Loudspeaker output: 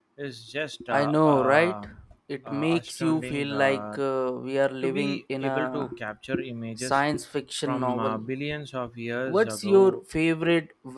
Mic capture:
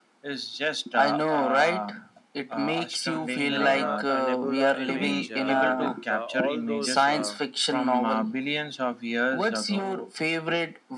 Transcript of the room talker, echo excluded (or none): Carina uh, Nebula image uh, with uh, all those uh,